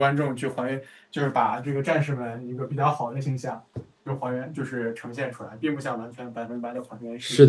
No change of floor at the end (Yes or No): No